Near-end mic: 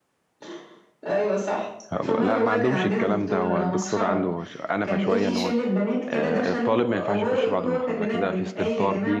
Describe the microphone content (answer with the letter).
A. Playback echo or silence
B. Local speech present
B